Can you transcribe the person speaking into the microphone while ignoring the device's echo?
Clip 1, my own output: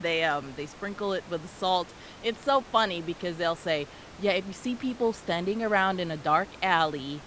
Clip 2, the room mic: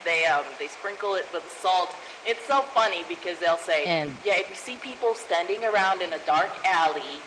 and,

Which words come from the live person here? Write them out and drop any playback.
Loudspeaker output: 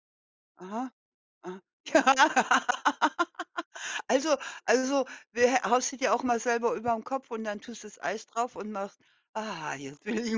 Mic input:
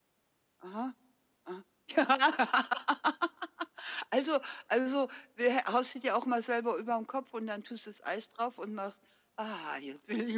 none

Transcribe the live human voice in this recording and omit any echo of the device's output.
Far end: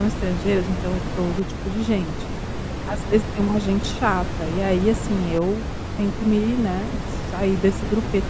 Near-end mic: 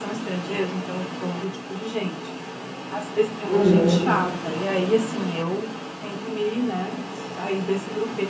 Uhum.

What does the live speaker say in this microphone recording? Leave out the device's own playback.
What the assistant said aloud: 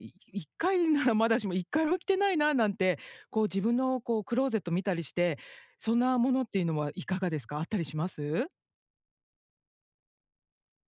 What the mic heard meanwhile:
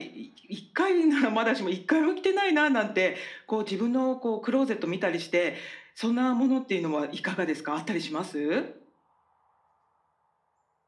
none

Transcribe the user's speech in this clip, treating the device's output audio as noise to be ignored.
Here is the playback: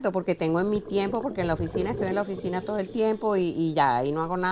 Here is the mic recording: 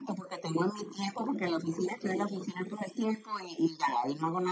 none

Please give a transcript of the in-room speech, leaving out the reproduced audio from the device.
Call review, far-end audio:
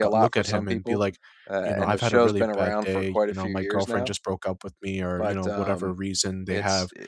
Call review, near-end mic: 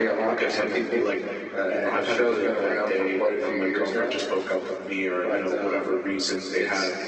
none

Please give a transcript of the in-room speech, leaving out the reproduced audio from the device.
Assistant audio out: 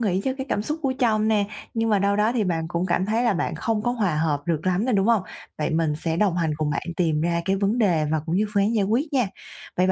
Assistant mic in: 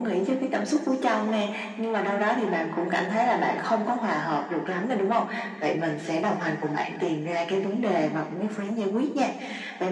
none

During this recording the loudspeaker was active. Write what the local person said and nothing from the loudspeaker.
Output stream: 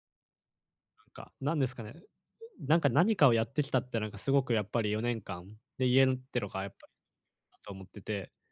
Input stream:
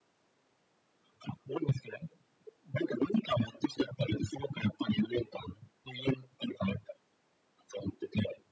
none

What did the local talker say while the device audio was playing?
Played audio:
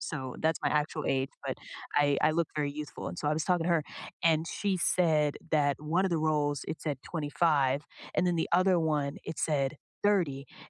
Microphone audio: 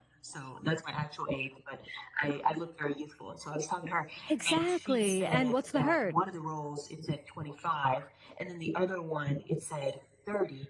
Exactly, and what's the hurt?

